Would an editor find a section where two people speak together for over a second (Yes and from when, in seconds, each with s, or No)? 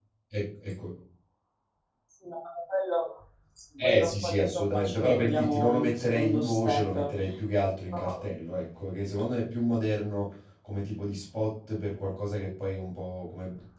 Yes, from 3.8 s